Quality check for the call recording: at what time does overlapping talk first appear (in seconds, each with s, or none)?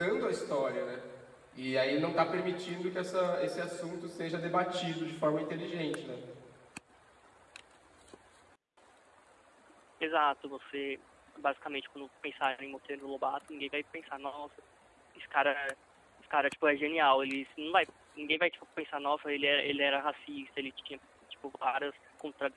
none